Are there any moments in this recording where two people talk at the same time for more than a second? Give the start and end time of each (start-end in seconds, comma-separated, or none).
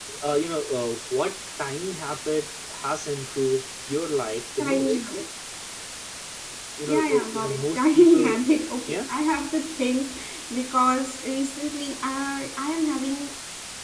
6.9-8.2